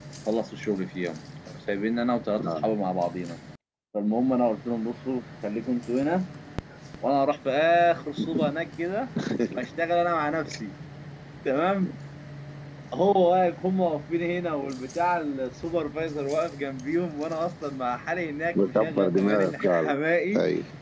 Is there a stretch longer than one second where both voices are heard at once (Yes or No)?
Yes